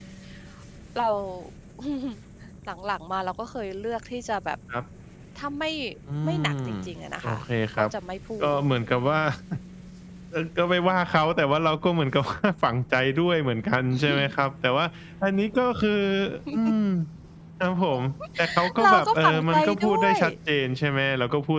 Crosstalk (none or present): present